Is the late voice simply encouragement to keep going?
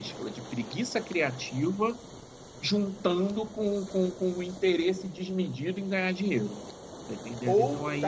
No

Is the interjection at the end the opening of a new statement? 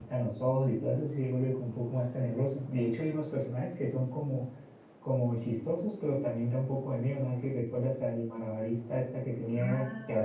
Yes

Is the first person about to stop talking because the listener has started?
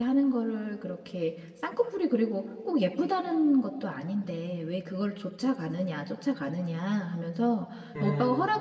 No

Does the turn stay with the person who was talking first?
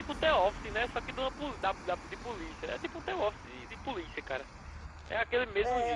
No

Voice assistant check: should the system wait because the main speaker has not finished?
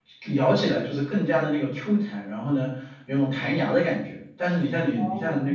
Yes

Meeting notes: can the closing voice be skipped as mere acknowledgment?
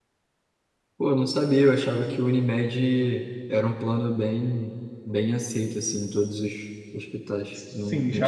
No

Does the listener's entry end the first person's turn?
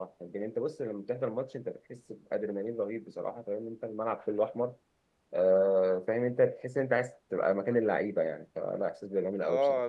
Yes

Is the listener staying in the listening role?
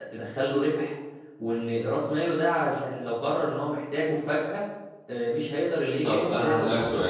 No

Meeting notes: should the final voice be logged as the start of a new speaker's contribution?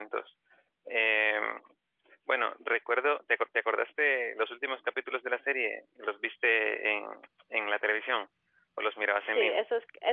Yes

